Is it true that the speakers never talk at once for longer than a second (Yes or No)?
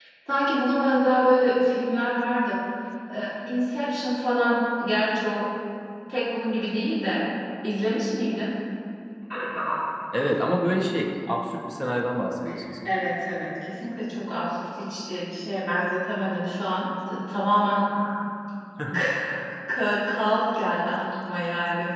Yes